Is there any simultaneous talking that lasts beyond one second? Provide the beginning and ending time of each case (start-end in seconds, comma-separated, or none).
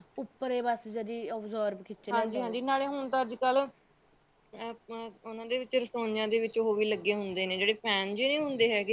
none